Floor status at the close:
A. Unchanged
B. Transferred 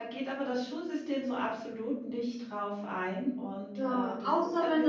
B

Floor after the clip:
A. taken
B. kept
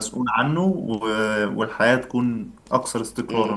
A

